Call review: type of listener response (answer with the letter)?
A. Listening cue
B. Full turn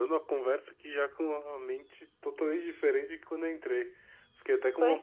A